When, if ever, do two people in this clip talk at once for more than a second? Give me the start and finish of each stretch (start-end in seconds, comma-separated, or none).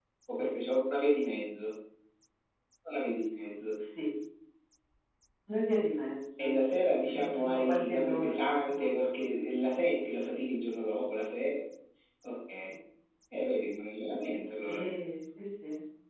7.2-9.3